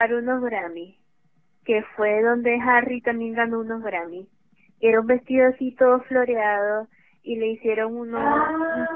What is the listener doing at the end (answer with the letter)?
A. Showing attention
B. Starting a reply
A